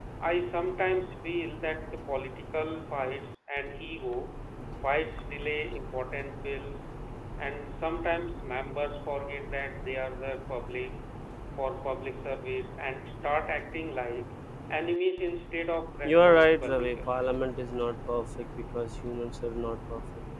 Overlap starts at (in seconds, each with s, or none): 16.0 s